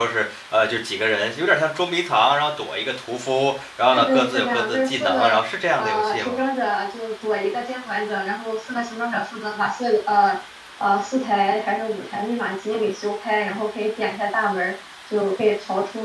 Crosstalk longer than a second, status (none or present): present